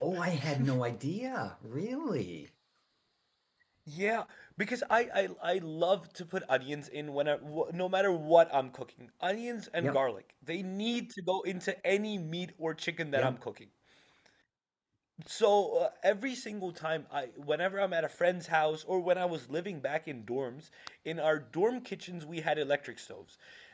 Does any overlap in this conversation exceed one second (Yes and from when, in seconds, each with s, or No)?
No